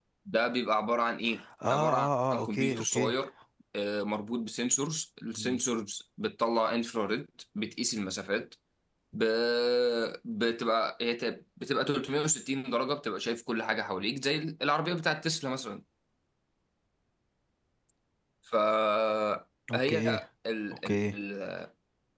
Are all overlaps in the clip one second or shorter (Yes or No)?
No